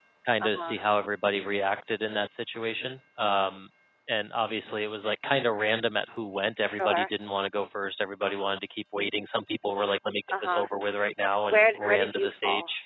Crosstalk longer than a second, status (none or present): present